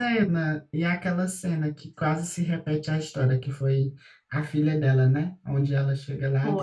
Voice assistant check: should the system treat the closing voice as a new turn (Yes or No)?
No